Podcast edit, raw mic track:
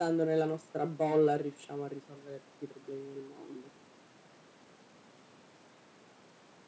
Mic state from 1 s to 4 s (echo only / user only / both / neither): echo only